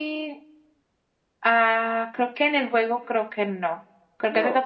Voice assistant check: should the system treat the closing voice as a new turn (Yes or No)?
No